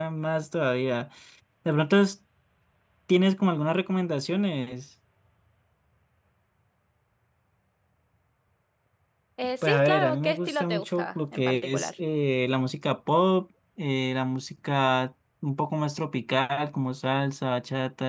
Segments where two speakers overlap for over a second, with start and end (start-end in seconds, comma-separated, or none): 9.6-11.9